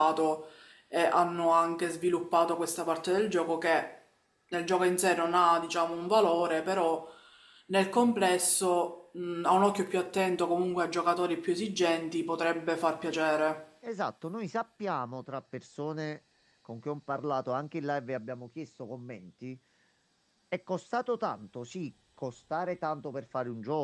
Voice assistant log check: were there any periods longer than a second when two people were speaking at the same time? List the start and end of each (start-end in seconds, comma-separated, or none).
none